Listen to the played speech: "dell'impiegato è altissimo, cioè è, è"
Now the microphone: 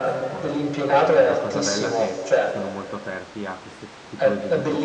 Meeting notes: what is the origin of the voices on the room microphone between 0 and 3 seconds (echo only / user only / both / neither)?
both